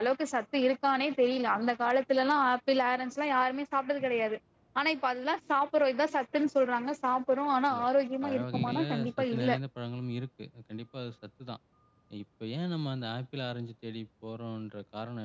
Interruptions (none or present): present